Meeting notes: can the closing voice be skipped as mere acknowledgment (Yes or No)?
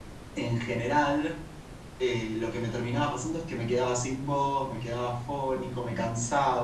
Yes